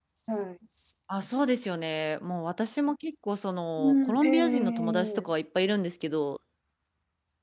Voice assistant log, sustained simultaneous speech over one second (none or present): present